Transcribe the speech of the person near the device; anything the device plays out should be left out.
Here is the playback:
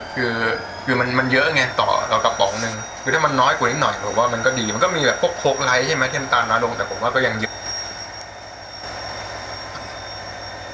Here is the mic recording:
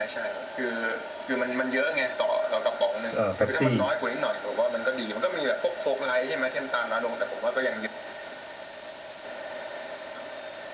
เอ่อเป๊ปซี่

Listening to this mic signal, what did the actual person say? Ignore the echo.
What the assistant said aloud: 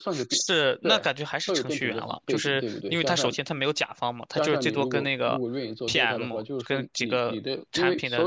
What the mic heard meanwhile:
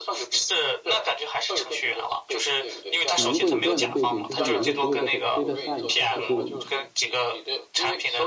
你如果有这样的背景，就是有一个职位叫做 data science，就是

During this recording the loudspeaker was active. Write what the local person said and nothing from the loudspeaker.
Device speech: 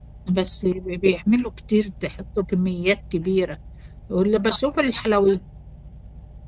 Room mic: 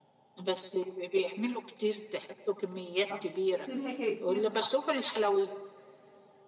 صح بيصير هيك كثير

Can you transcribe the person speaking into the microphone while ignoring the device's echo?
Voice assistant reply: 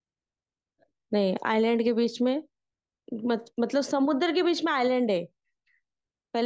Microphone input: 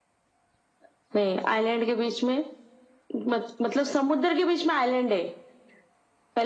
none

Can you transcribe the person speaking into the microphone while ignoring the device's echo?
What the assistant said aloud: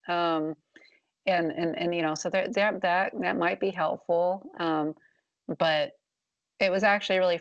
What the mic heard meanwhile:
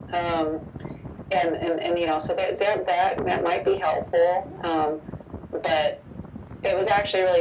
none

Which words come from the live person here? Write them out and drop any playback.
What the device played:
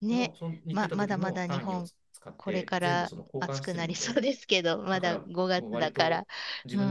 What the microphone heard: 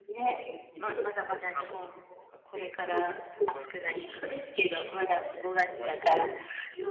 none

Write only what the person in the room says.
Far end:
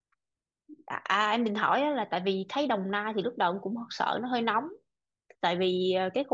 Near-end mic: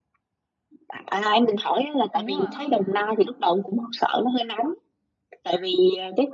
đúng rồi

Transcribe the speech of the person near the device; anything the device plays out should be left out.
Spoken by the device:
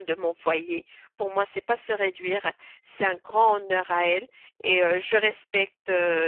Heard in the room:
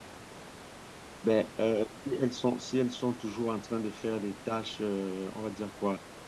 Ben, euh, si elles sont, si elles sont toujours en train de faire des tâches, euh, on va dire quoi,

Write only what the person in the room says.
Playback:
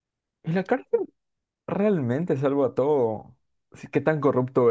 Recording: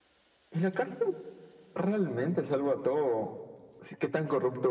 none

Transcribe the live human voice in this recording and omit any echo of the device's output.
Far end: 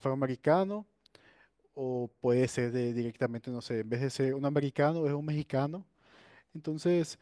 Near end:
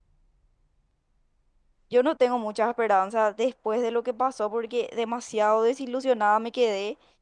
Yo no tengo muchas esperanzas después de lo que pasó porque demasiado desilusionada me quedé,

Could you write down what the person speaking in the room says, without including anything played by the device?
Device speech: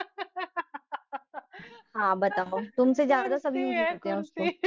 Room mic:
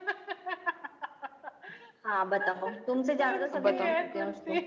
अब बताओ

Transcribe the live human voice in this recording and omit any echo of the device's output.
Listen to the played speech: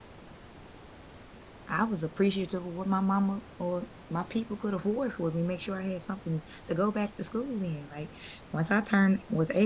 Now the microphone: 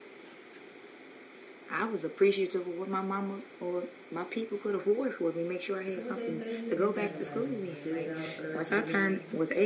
So what they say, you just had to like sit it out for the rest of the game.

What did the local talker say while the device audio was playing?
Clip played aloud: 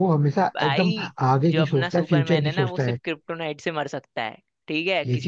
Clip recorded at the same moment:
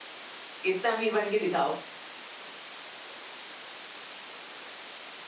इतना अमीर बन के दिखाओ

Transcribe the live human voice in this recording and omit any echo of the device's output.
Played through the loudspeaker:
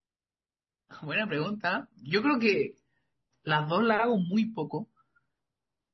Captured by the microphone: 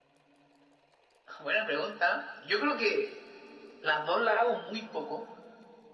none

